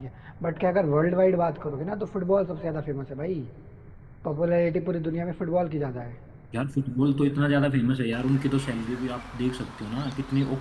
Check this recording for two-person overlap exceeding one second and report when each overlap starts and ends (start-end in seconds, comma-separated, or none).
none